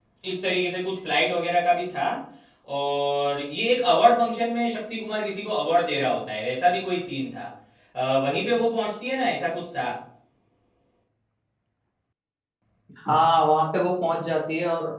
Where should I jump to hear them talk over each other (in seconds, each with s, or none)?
none